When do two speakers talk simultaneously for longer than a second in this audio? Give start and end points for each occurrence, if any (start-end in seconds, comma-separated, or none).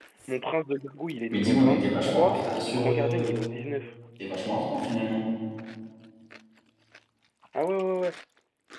1.3-3.3